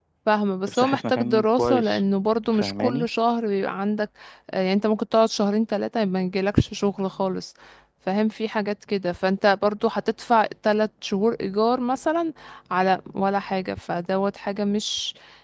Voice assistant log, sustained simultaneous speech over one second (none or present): present